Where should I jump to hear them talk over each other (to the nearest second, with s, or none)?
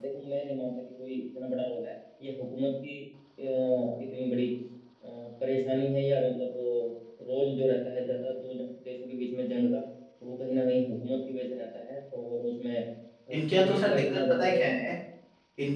13 s